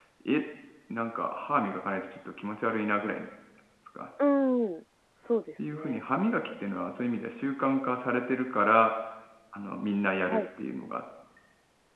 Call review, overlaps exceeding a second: none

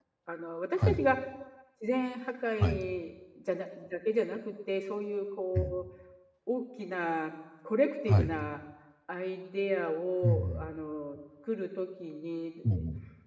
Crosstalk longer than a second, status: none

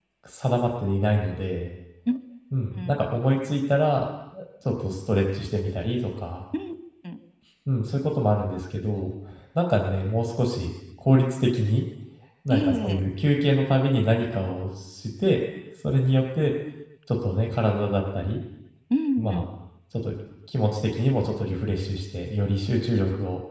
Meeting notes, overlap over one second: none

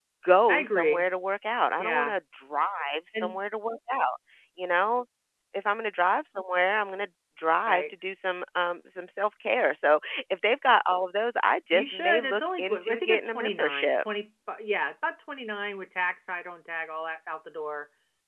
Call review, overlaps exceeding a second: present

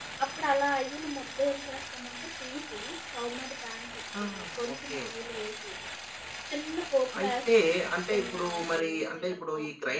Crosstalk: present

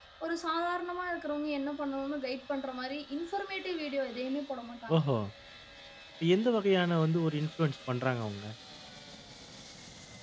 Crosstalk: none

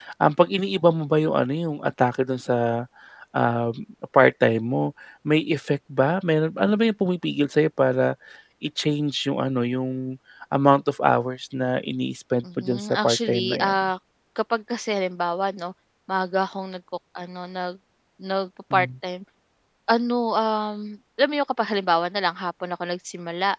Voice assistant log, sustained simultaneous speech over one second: present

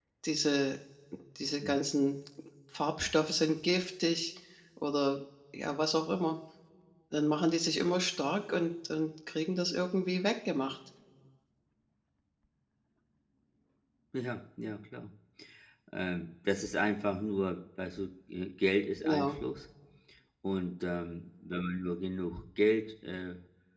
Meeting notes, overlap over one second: none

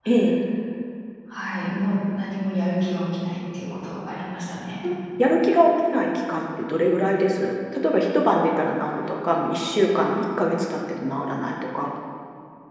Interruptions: none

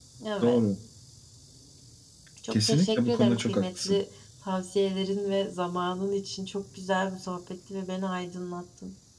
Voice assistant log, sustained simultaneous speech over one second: present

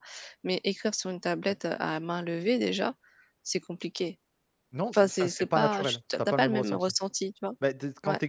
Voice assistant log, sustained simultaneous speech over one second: present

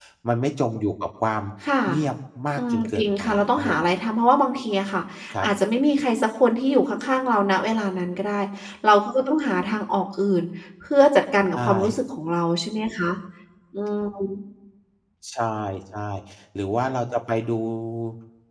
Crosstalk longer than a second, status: present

